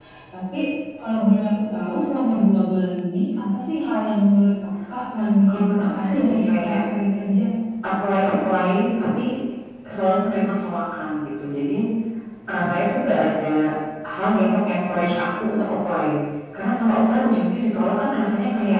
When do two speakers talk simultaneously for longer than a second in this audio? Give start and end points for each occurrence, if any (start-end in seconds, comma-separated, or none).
5.2-6.8